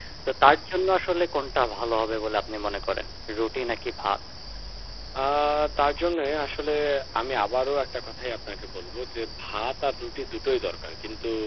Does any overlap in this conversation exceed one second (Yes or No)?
No